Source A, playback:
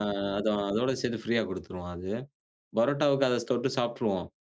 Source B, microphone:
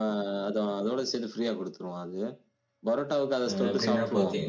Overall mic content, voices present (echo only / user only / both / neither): both